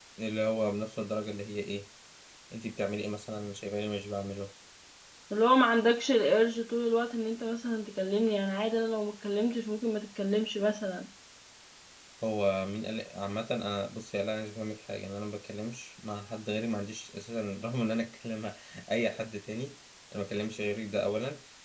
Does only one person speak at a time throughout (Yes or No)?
Yes